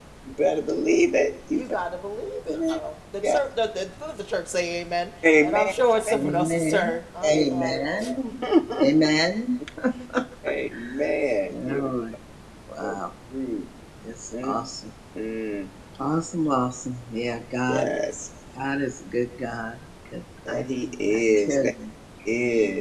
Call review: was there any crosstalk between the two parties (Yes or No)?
Yes